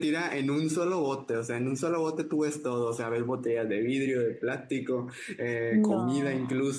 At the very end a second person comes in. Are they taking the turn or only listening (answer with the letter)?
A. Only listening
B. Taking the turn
A